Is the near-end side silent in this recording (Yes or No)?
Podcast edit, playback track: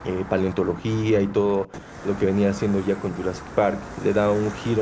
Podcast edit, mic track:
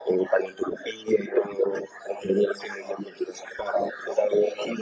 Yes